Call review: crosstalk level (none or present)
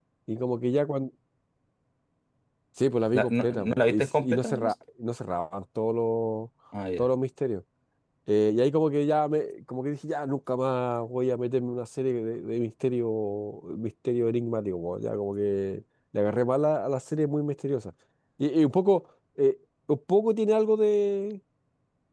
present